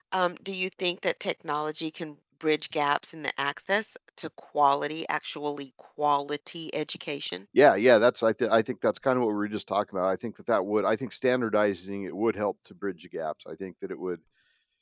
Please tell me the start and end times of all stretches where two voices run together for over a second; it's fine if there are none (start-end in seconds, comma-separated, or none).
none